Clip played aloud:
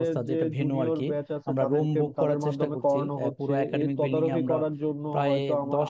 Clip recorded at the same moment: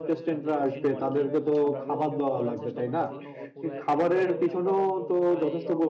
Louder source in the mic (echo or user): user